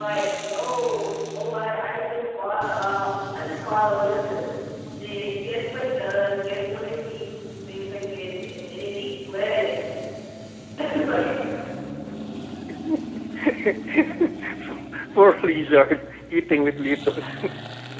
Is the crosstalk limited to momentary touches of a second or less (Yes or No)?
Yes